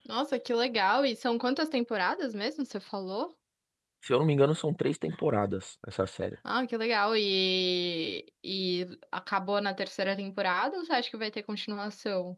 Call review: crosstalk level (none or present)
none